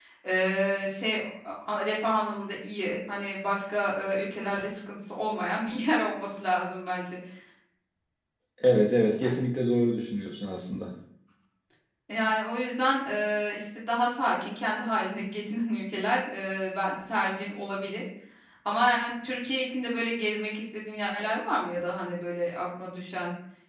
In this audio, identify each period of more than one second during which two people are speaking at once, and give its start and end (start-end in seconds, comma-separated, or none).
none